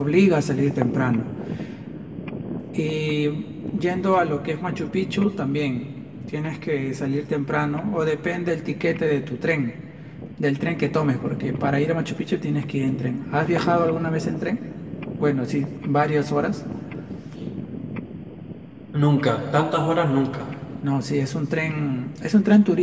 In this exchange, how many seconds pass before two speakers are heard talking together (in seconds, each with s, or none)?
none